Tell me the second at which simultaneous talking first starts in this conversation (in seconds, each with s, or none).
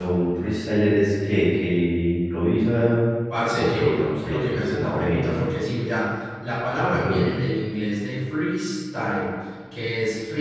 3.5 s